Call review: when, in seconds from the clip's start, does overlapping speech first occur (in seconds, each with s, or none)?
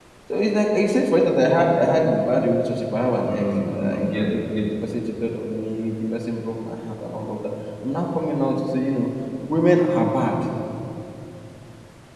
3.2 s